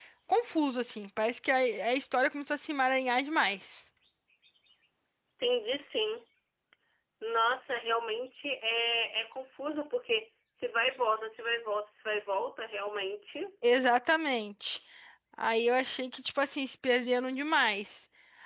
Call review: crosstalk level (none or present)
none